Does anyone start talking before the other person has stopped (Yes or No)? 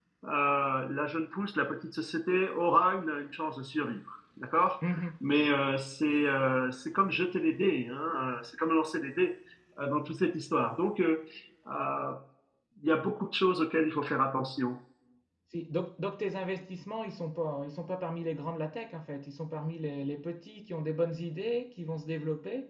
No